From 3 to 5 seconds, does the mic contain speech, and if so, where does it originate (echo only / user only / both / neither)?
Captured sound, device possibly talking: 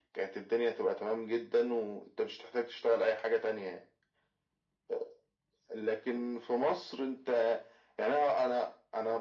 echo only